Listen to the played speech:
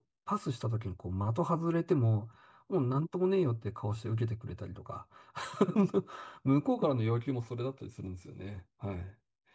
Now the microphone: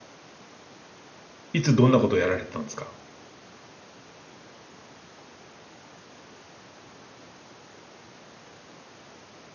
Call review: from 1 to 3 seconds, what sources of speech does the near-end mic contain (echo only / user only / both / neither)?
user only